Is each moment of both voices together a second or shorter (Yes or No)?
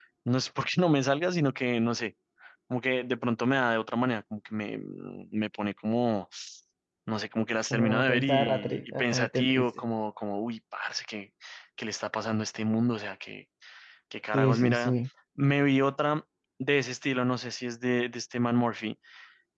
No